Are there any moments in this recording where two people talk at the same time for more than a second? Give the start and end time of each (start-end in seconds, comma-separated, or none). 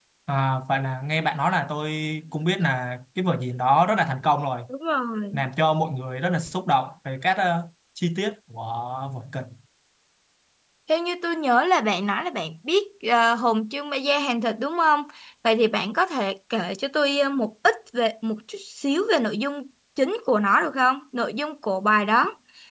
none